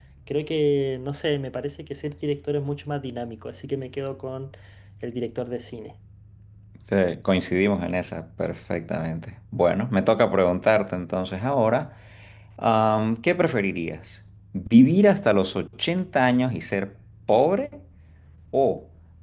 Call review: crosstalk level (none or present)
none